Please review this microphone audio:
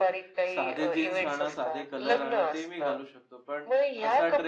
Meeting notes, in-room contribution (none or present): present